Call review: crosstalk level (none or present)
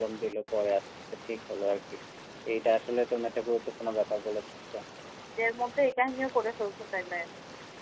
none